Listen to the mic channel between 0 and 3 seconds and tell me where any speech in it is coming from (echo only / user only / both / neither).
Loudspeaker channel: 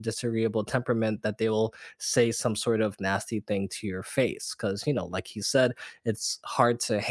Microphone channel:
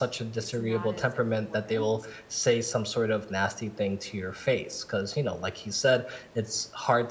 both